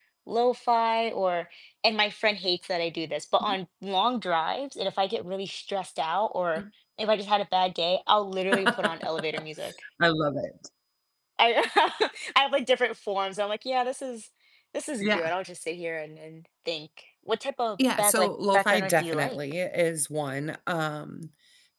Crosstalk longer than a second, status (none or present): present